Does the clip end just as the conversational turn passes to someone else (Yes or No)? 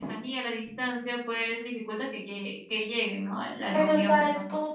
Yes